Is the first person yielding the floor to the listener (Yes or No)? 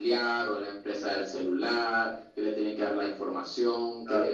No